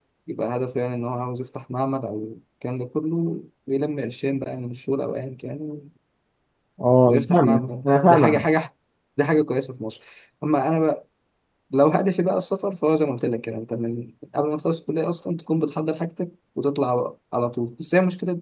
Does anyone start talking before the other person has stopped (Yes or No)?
Yes